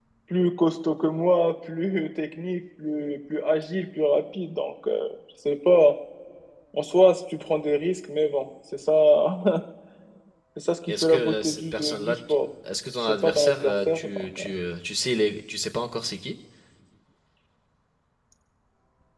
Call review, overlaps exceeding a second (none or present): present